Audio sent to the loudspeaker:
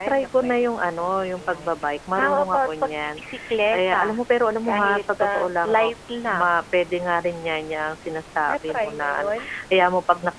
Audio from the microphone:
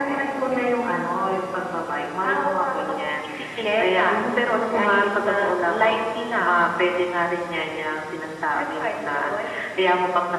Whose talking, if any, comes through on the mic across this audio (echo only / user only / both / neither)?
echo only